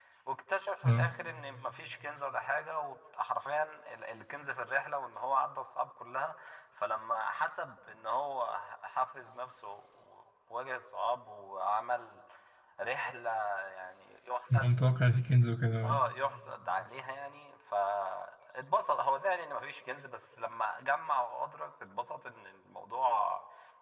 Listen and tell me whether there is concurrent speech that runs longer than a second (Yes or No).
No